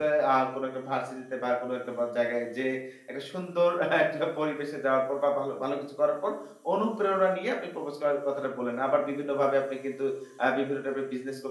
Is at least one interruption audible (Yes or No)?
No